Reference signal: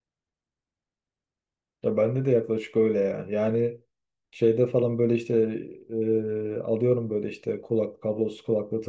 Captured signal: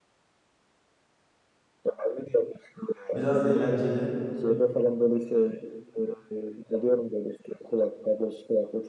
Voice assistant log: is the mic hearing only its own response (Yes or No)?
No